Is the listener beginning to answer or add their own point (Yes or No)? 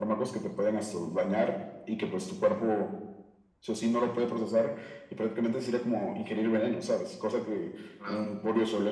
No